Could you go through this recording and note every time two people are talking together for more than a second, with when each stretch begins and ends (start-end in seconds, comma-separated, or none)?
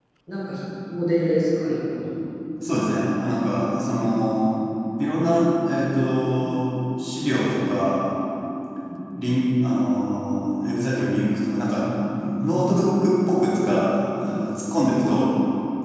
none